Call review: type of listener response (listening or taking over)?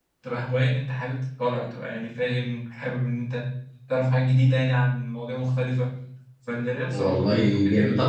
taking over